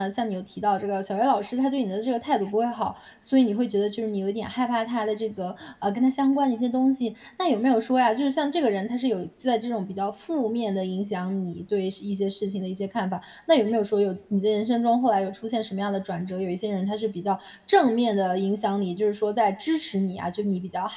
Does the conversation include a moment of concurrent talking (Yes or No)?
No